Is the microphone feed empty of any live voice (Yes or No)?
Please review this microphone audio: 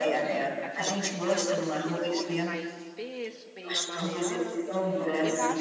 No